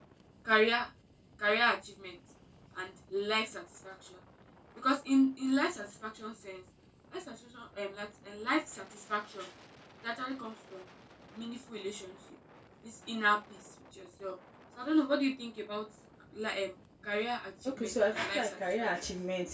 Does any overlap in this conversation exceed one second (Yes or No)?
Yes